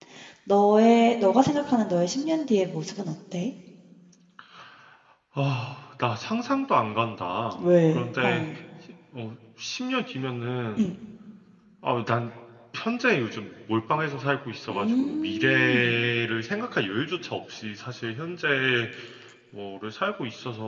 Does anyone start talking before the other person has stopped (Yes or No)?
Yes